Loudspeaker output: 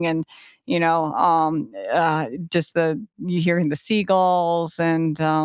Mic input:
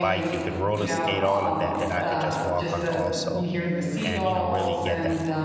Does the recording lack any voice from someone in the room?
No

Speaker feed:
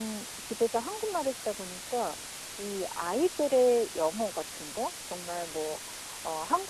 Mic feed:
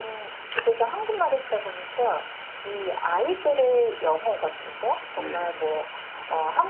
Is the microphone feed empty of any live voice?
No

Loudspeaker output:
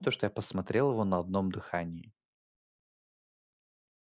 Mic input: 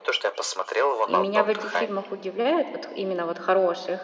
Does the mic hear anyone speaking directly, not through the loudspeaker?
Yes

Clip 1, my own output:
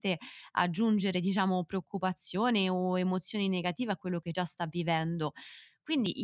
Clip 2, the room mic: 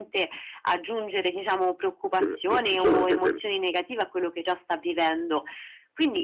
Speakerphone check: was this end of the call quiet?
No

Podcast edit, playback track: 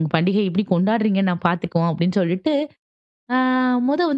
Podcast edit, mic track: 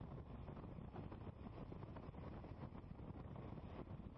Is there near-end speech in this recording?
No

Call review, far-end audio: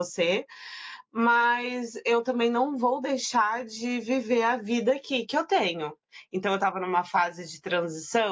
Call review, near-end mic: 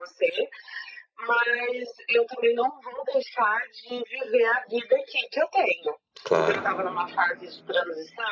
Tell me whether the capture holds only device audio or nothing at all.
No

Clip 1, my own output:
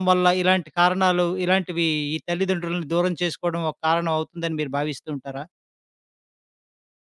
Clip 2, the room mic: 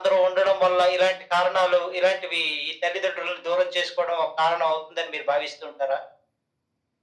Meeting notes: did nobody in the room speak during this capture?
Yes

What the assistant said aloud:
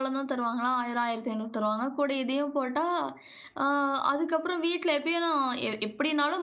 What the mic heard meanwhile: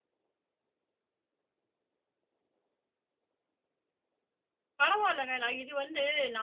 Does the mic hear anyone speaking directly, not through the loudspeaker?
Yes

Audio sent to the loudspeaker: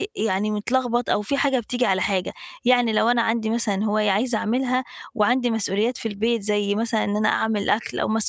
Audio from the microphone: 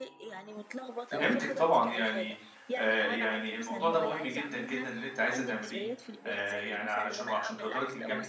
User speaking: Yes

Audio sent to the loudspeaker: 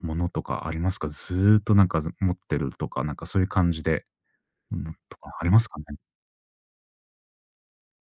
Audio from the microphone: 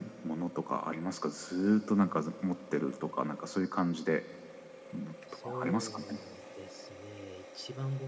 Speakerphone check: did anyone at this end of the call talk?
Yes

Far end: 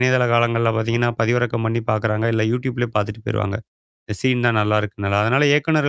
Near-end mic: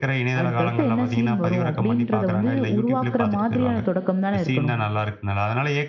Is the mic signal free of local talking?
No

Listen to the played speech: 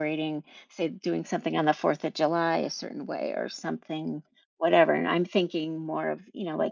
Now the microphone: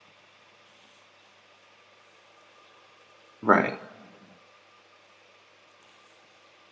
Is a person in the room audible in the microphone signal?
Yes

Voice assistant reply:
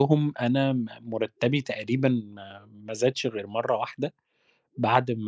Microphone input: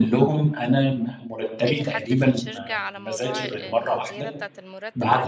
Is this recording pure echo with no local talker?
No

